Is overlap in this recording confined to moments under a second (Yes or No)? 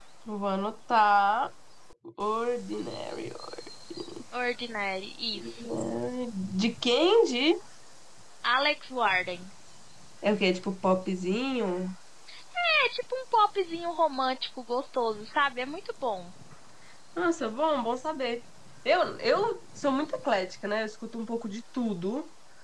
Yes